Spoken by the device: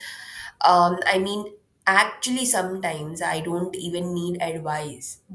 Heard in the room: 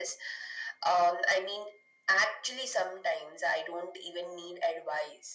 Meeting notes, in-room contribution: none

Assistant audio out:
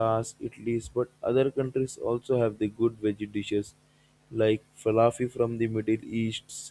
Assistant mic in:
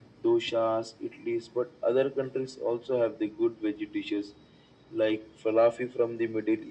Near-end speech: none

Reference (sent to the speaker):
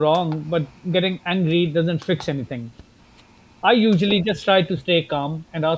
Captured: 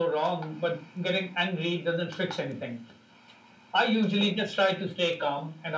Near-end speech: none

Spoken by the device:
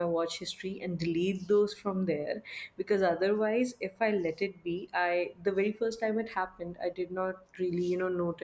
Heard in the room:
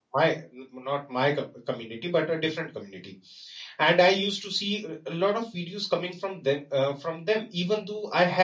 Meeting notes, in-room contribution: present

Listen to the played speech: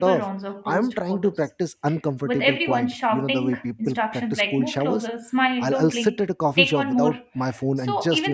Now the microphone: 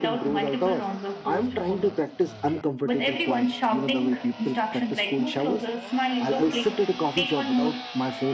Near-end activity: none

